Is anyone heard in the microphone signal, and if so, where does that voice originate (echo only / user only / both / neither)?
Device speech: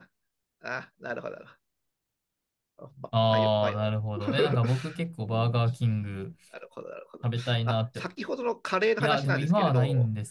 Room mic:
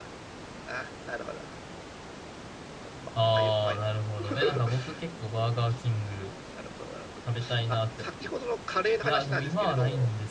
echo only